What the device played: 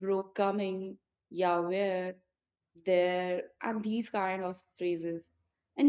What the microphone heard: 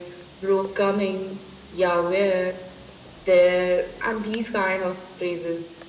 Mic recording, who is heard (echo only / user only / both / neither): echo only